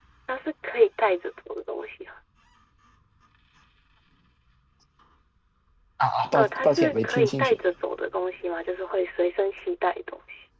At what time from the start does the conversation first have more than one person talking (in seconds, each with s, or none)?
6.3 s